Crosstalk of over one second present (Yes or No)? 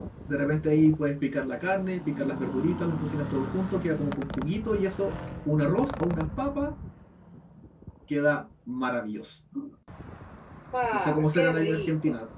Yes